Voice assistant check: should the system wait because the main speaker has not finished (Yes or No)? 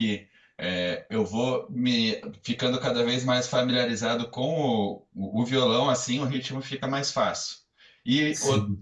Yes